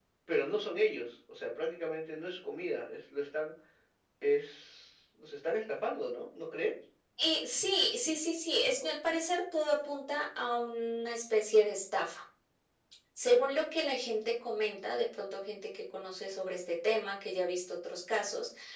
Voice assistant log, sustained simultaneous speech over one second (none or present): none